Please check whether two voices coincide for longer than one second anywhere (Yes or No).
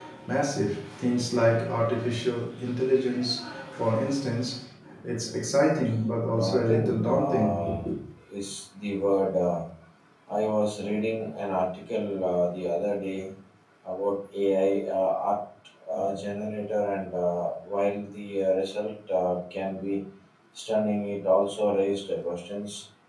Yes